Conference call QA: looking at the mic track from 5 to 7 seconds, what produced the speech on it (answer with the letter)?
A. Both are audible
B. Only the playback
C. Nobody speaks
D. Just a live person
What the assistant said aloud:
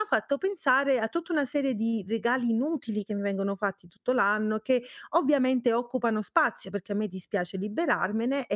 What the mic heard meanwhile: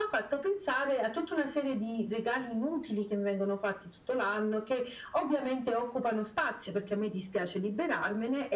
B